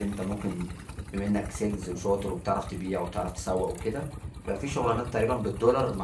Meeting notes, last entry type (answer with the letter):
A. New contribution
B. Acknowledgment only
B